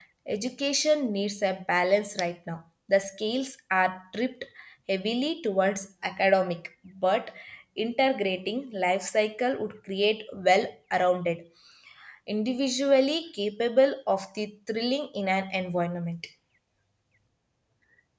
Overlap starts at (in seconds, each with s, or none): none